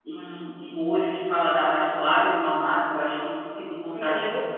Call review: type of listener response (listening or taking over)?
taking over